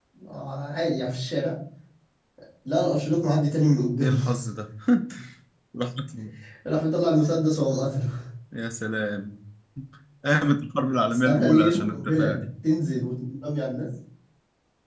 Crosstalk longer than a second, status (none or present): present